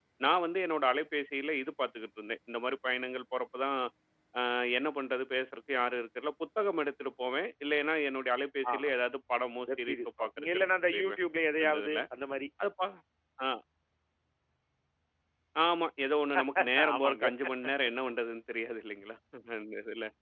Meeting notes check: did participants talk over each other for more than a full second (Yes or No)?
Yes